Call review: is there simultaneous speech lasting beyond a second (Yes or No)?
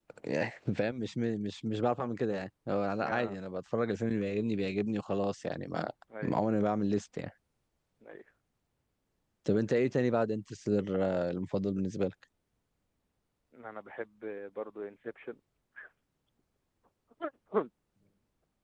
No